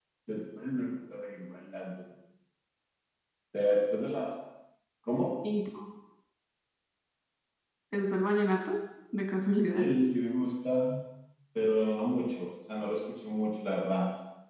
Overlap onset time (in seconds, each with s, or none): none